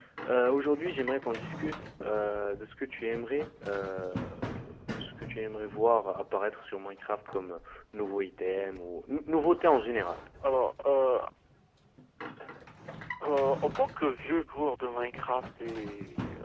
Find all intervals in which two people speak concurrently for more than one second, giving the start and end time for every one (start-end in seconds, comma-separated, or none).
none